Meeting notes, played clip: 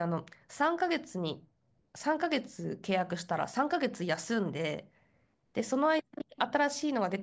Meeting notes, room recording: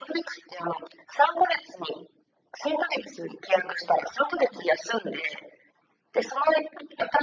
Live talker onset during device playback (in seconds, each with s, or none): none